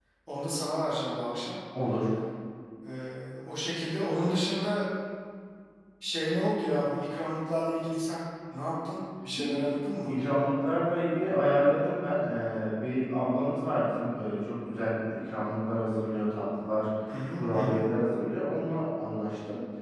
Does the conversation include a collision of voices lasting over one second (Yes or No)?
No